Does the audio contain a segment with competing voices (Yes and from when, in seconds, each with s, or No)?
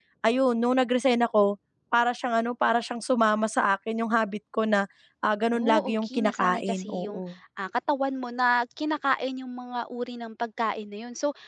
Yes, from 5.5 s